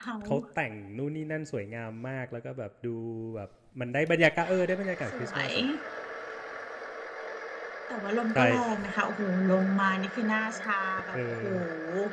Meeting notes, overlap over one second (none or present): none